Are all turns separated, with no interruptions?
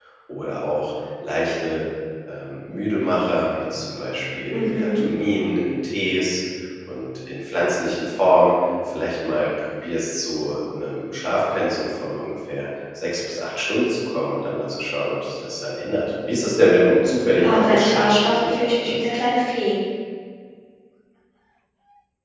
No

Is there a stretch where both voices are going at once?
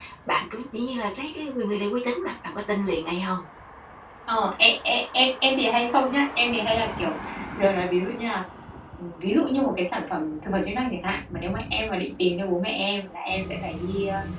No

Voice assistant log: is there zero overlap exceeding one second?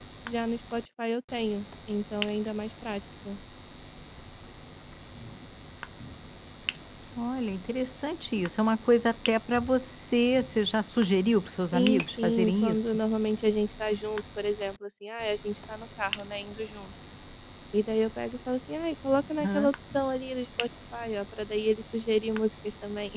No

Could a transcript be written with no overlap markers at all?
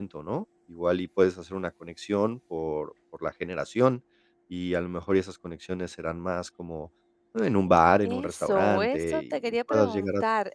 No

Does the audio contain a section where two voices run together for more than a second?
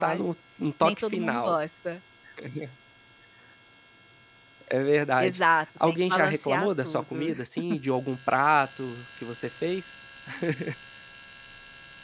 Yes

